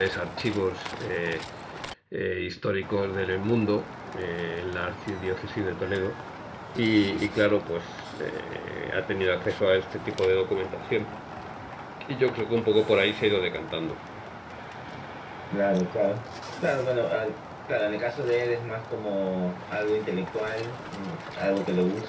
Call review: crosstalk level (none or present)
none